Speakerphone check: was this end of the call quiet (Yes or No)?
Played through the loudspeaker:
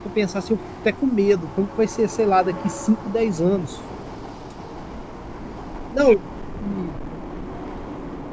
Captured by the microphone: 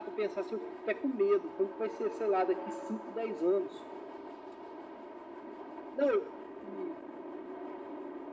Yes